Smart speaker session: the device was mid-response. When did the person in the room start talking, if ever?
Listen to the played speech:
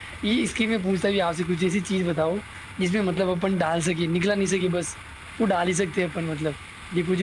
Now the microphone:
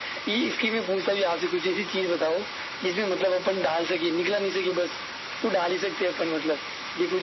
none

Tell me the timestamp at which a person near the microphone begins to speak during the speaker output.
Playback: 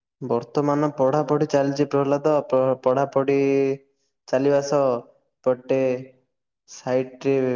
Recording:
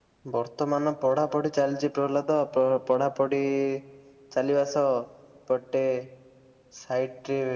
none

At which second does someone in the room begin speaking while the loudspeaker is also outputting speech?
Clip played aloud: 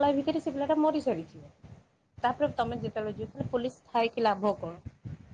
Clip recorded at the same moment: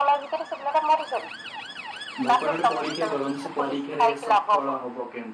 2.2 s

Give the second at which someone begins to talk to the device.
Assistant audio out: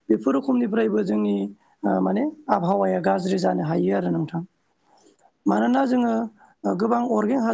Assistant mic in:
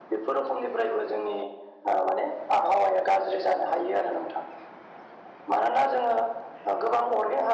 none

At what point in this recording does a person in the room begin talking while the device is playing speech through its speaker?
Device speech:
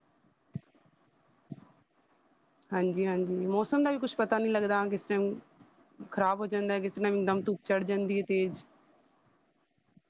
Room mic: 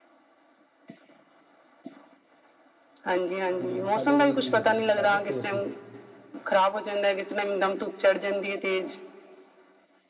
3.6 s

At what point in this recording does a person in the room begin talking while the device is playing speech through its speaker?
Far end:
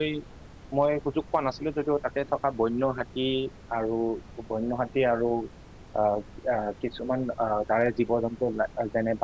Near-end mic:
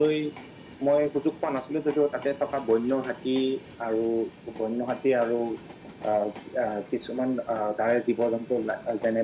none

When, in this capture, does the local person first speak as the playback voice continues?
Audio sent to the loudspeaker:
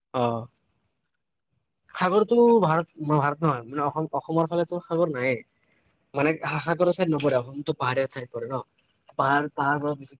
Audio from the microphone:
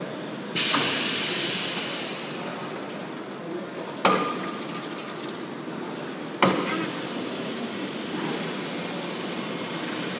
none

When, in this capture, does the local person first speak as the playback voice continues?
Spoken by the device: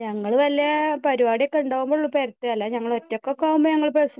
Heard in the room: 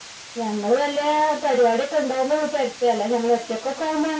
none

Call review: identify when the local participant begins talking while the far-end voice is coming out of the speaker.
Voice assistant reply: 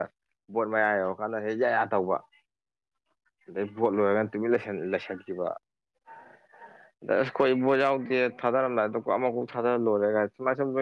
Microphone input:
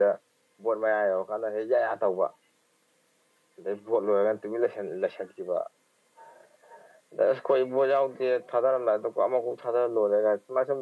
none

